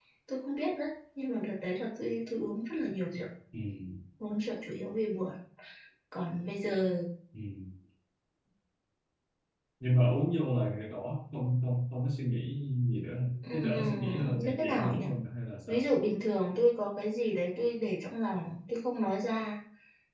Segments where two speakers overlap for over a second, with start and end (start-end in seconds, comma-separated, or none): 13.5-15.0